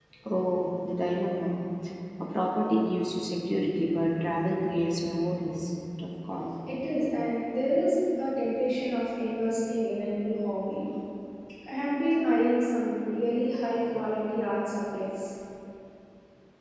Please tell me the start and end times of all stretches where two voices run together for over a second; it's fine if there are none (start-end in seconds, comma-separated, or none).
none